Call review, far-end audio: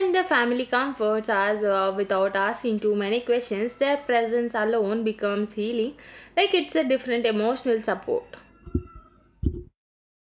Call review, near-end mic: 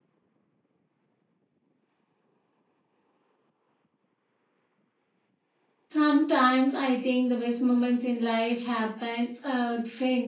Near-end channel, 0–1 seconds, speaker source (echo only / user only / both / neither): neither